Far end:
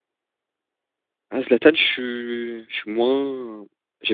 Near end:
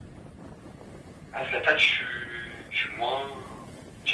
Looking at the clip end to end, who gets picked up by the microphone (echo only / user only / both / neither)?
echo only